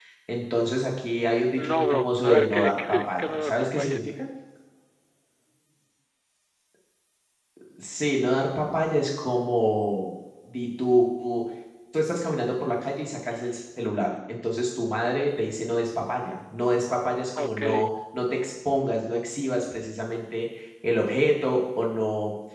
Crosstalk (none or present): present